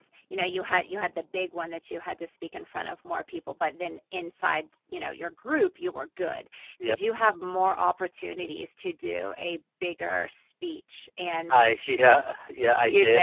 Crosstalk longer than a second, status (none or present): none